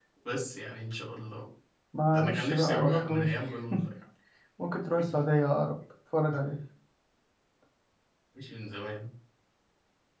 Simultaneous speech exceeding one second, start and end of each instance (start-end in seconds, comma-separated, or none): 2.1-3.3